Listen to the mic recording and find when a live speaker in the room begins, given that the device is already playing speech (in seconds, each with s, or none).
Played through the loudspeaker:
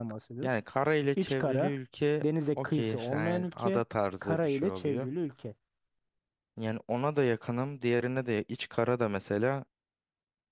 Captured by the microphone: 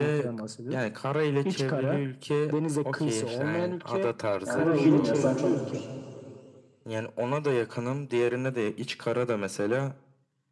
4.4 s